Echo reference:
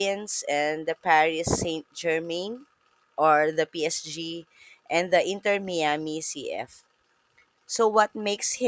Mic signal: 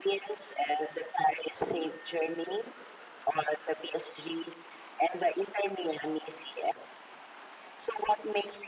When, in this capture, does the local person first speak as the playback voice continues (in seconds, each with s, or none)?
none